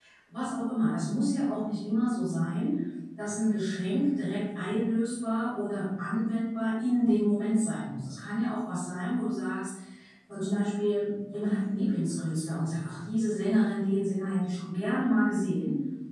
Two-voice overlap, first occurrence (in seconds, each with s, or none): none